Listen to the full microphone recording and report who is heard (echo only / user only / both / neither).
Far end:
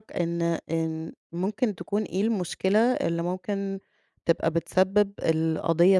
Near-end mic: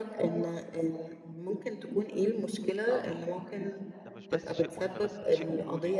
both